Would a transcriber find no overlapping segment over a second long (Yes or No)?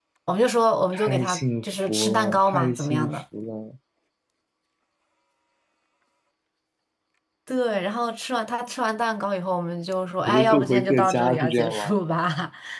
No